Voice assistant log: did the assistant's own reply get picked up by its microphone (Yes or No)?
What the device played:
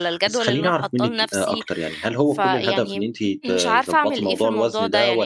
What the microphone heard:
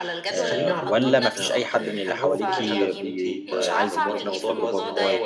Yes